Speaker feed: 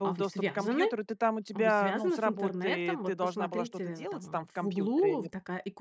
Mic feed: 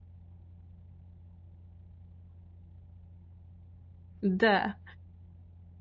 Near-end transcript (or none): Да.